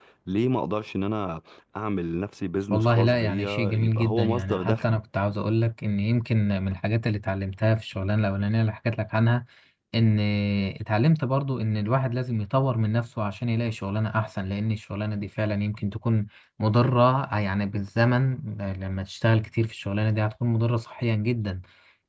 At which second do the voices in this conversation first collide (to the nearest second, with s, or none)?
3 s